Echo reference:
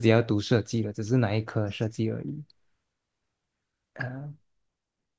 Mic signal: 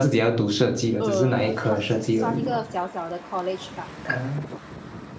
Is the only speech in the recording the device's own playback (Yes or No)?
No